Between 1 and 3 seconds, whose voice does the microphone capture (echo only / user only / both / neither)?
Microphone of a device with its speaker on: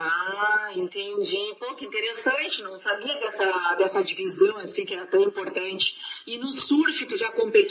echo only